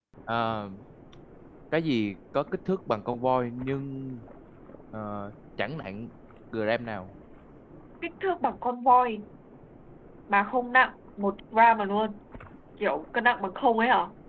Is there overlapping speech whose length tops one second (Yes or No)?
No